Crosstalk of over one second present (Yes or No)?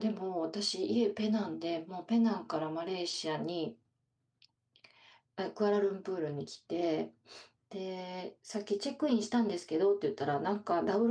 No